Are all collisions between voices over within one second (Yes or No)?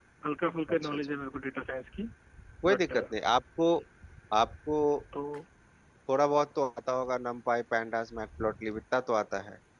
Yes